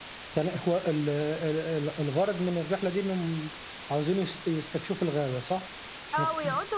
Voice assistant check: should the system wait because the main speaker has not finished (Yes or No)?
No